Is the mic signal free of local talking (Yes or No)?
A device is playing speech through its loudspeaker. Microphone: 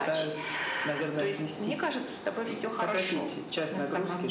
Yes